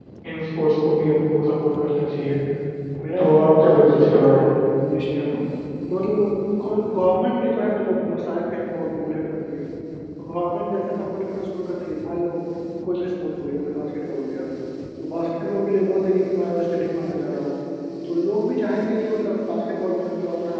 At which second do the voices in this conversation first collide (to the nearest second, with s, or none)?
3 s